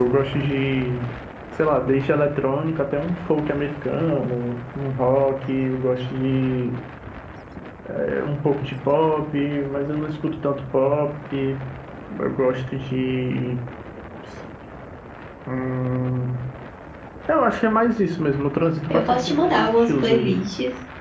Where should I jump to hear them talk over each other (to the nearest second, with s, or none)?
19 s